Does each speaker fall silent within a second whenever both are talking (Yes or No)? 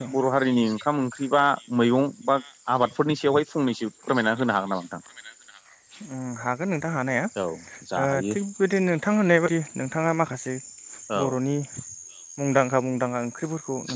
Yes